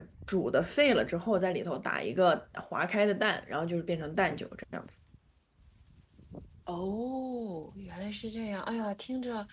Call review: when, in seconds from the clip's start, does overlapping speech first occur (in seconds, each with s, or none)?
none